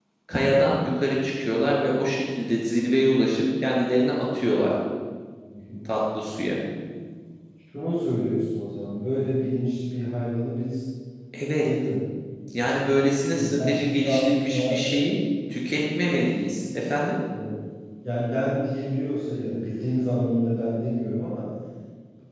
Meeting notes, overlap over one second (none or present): present